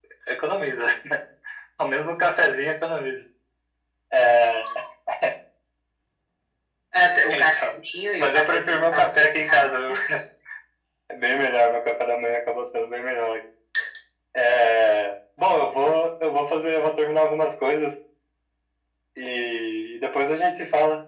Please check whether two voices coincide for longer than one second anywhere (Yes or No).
Yes